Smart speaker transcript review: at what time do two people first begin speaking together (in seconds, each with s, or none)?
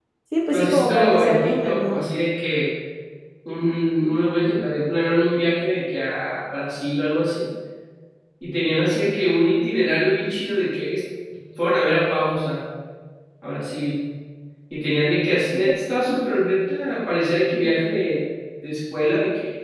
0.5 s